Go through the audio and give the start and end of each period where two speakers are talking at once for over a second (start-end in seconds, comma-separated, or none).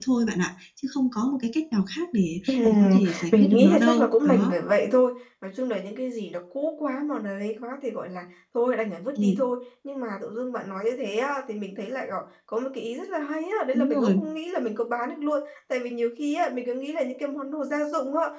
2.5-4.5